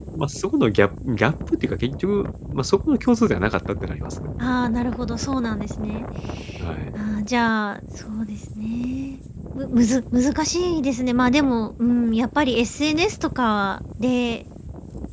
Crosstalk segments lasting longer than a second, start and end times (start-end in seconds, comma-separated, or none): none